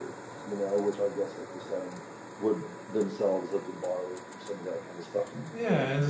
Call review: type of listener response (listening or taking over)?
taking over